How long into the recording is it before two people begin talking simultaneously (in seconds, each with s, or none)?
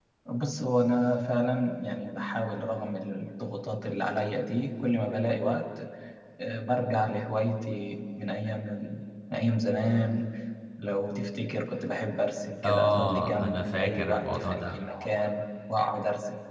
12.6 s